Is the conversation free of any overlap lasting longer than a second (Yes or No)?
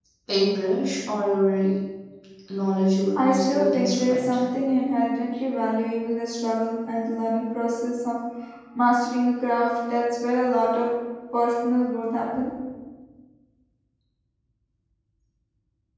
No